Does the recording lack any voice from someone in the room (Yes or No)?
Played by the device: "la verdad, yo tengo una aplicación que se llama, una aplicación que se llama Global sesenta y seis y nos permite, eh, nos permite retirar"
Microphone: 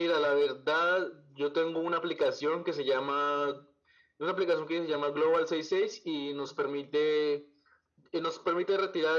Yes